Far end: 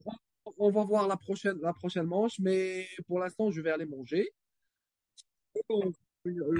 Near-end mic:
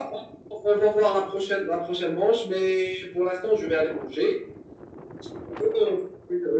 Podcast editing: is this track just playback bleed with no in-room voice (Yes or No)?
Yes